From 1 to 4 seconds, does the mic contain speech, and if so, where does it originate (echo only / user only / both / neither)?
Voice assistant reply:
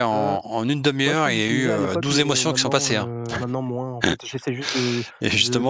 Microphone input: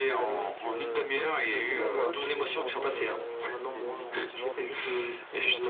both